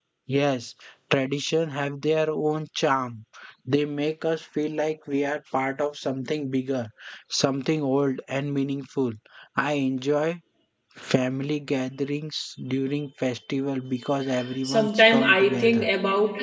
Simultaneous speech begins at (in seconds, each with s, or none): 14.6 s